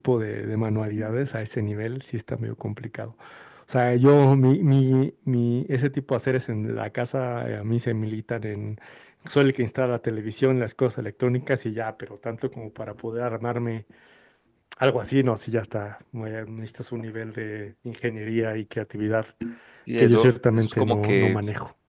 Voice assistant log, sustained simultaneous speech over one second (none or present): present